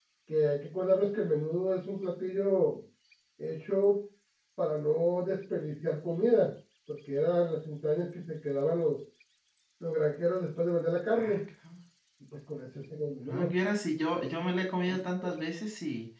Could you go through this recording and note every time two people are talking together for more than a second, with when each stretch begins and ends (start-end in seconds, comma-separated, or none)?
none